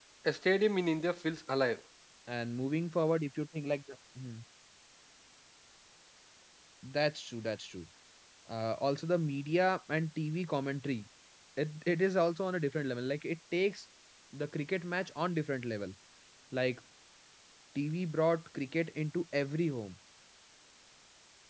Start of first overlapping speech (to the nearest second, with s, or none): none